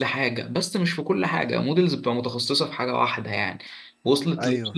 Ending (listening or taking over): listening